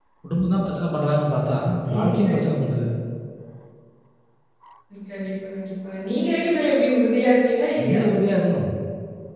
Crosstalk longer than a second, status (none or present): none